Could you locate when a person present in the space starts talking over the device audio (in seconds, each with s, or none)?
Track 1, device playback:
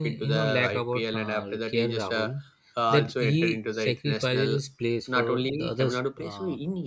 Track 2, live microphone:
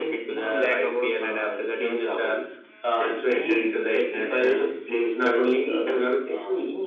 none